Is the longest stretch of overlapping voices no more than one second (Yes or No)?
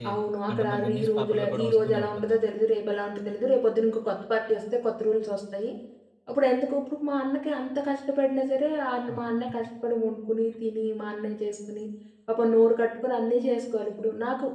No